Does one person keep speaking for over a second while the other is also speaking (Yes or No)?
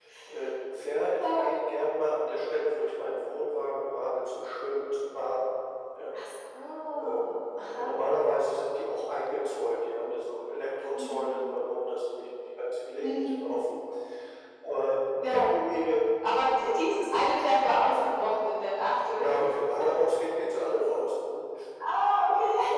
No